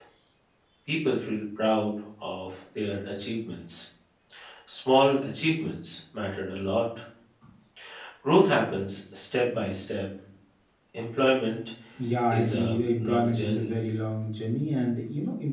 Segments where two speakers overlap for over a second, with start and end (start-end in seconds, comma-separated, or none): 12.3-13.7